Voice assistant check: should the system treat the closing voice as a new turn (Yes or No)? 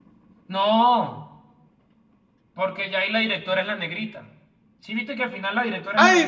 Yes